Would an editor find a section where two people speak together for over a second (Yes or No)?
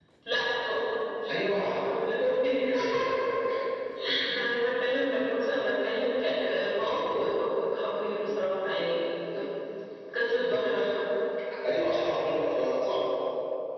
No